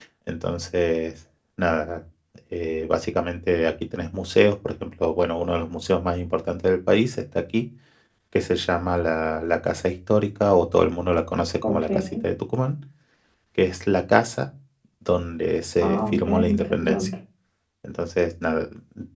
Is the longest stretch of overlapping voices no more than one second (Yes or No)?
No